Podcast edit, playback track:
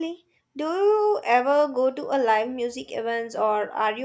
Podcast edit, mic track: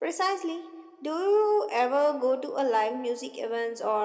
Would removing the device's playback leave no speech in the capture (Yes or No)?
Yes